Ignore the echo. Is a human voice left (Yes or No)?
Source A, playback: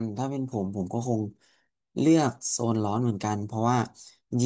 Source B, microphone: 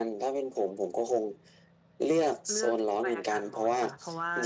Yes